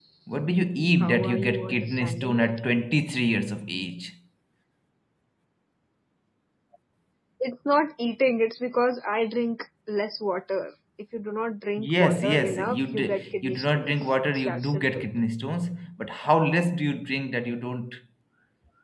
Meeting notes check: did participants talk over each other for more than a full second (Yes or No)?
Yes